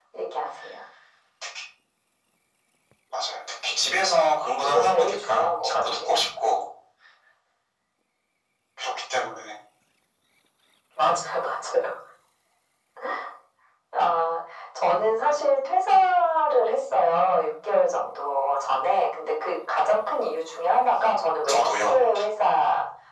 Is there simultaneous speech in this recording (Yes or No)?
Yes